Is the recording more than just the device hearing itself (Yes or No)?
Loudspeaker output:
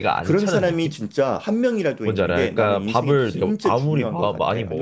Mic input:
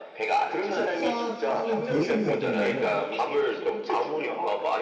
Yes